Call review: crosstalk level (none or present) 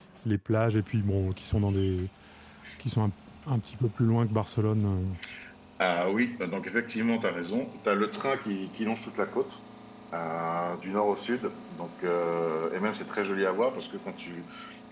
none